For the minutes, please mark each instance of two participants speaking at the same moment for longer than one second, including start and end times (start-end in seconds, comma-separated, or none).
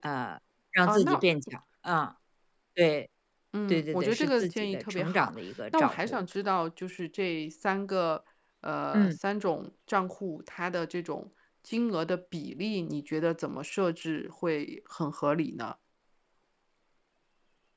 3.7-5.3